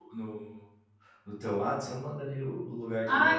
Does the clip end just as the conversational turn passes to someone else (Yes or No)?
Yes